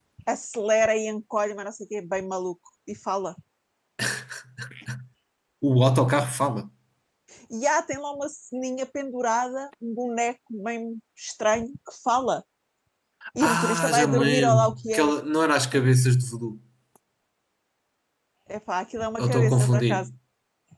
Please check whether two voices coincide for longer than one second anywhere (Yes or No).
Yes